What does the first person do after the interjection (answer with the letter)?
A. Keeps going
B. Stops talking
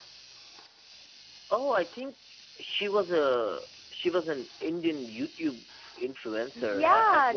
B